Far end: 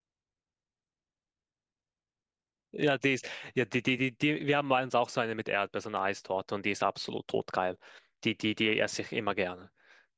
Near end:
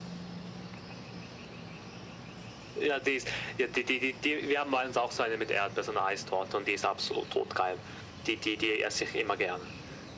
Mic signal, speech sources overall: echo only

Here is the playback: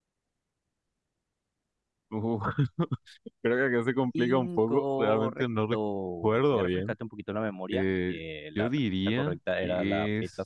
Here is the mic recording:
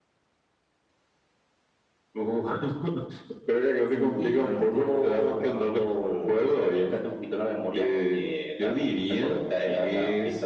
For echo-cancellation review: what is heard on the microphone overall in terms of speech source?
both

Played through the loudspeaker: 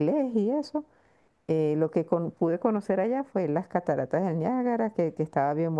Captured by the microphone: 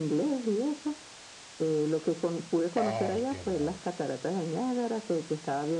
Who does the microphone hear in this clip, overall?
both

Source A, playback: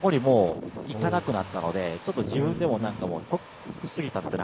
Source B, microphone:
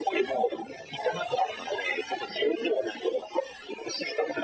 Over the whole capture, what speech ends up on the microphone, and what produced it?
echo only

